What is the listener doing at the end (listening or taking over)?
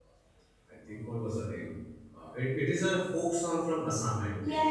taking over